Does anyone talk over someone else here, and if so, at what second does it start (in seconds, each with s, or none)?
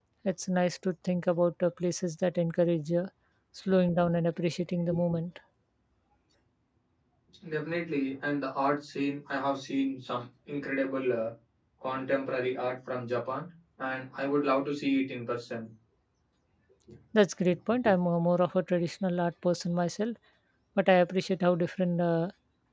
none